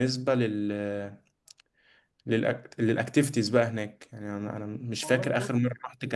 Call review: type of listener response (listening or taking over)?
listening